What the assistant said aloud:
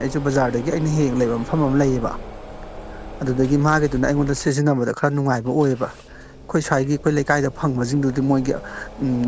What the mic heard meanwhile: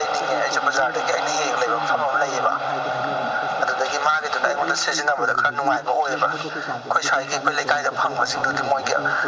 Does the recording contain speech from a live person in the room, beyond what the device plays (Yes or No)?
Yes